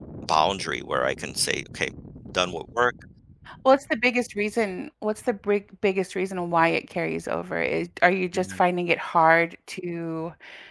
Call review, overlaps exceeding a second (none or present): none